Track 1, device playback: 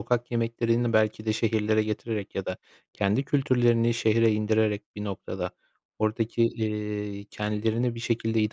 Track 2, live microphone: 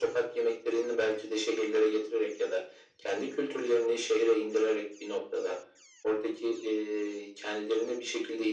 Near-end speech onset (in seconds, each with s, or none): none